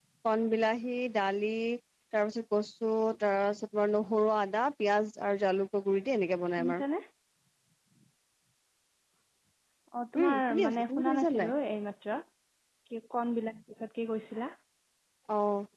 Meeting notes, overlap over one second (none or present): present